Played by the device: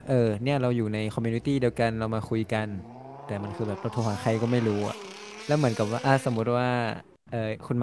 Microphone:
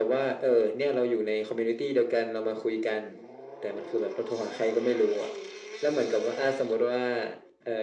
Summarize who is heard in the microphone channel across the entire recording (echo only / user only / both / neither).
echo only